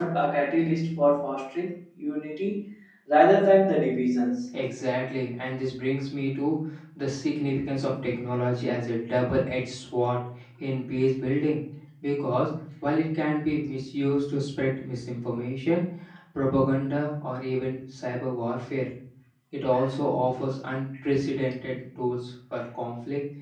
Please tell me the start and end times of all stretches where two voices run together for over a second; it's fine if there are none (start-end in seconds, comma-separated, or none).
none